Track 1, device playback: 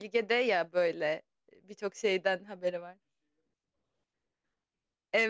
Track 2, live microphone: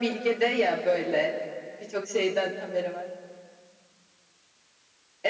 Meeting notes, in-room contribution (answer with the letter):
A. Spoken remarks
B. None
B